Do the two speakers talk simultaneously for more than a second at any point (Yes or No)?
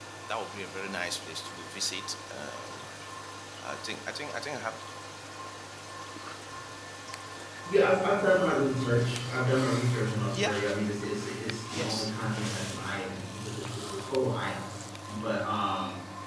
No